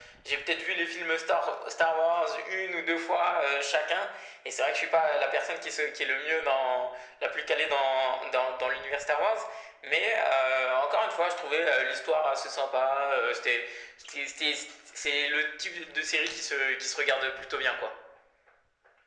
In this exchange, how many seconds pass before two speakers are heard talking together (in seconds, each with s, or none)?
none